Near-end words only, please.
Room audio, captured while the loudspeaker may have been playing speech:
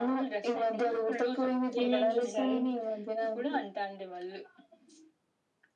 ఏమేం చూస్తారు

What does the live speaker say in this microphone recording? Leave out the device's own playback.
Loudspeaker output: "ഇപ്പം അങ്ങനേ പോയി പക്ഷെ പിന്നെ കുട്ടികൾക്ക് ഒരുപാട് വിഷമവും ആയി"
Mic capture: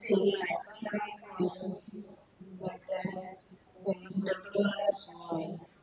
none

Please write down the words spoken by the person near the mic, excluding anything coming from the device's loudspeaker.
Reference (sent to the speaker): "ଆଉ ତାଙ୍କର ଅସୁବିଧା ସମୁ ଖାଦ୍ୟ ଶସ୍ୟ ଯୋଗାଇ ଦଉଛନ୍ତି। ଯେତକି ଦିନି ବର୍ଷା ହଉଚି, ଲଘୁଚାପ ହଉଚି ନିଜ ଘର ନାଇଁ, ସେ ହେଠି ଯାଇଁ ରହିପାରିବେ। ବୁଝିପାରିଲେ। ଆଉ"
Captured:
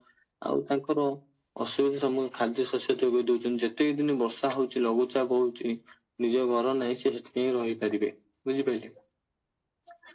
none

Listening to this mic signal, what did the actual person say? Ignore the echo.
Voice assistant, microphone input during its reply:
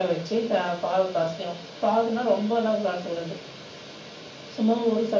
none

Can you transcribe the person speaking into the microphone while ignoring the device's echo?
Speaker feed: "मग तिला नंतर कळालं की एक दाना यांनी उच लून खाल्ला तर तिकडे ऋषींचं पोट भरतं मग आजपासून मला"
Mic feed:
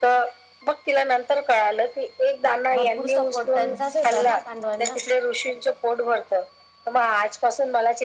भरपूर सपोर्ट त्यांचाच होता ना पांडवांना,

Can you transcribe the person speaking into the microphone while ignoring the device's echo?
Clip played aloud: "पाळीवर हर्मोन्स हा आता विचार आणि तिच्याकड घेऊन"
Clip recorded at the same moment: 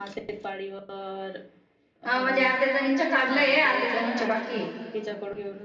हा म्हणजे अर्ध्या जणीच काढलंय अर्ध्या जणीनंच बाकी ये.

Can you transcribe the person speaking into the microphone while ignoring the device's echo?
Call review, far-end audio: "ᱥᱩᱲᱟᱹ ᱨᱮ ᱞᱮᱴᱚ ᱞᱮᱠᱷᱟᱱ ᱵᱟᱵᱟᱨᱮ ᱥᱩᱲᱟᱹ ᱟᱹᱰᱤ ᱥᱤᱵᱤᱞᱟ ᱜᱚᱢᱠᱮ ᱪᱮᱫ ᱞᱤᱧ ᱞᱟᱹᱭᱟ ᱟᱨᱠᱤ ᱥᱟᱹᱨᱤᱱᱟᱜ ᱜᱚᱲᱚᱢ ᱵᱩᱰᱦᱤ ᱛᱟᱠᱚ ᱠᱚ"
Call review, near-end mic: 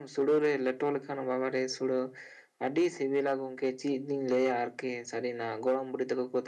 none

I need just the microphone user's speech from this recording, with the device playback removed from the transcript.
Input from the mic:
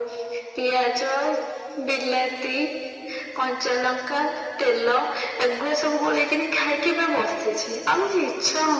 none

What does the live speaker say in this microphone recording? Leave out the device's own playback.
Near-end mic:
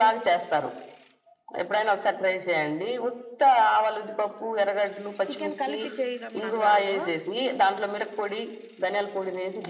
చికెన్ కలిపి చేయడం నాకు రాదు

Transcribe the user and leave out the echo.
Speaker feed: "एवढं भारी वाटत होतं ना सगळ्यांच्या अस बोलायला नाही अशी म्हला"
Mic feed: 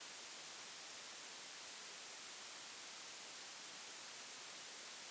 none

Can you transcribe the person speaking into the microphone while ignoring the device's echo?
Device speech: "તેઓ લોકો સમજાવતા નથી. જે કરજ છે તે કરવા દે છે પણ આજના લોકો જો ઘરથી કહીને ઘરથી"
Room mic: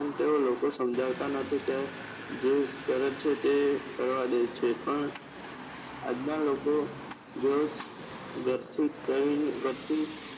none

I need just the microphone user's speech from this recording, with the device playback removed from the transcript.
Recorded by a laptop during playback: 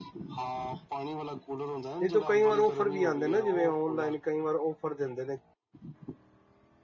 ਨਹੀਂ ਤਾਂ ਕਈ ਵਾਰ ਔਫਰ ਵੀ ਆਉਂਦੇ ਨਾ ਜਿਵੇਂ ਔਨਲਾਈਨ ਕਈ ਵਾਰ ਆਫਰ ਦਿੰਦੇ ਨੇ।

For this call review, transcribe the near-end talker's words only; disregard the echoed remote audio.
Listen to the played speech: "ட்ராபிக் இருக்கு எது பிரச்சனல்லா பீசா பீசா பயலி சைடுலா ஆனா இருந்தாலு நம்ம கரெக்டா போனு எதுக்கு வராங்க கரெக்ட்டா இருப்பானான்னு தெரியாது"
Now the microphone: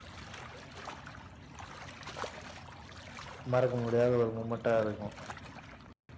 மறக்க முடியாத ஒரு மூமெண்ட்டா இருக்கு

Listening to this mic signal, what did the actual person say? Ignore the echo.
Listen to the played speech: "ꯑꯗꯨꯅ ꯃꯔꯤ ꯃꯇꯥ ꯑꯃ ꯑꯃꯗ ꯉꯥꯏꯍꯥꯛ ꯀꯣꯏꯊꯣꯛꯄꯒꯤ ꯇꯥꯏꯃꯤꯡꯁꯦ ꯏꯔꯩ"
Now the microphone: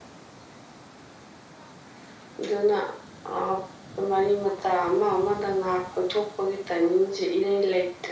none

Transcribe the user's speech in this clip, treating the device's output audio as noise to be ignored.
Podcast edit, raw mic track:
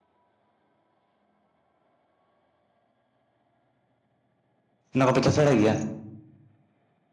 ᱚᱱᱟ ᱠᱚᱯᱮ ᱪᱟᱥ ᱵᱟᱲᱟᱭ ᱜᱮᱭᱟ?

